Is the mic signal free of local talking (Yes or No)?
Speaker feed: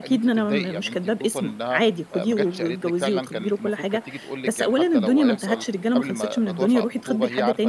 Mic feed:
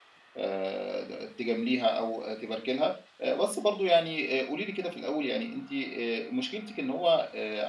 No